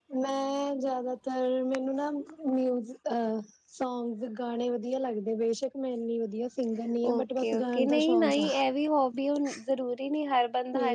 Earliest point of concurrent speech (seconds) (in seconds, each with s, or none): 7.0 s